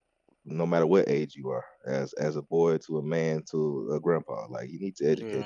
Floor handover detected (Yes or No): Yes